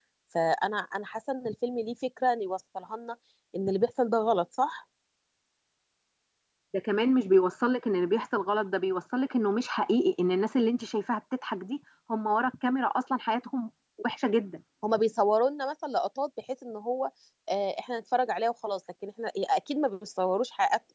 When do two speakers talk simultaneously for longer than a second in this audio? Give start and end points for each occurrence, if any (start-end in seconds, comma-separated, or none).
none